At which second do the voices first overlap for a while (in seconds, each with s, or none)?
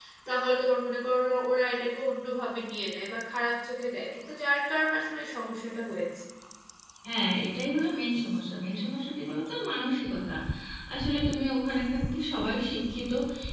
none